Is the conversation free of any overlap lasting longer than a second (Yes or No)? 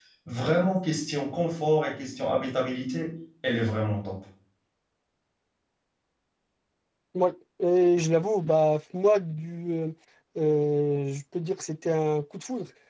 Yes